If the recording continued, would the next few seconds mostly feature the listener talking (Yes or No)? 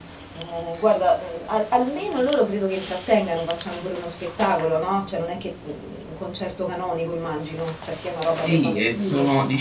Yes